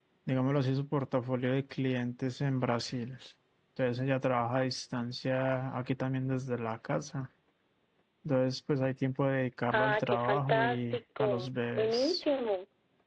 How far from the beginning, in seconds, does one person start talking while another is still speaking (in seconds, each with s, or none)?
9.7 s